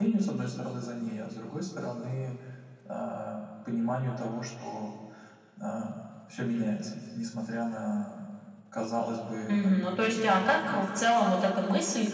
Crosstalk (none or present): present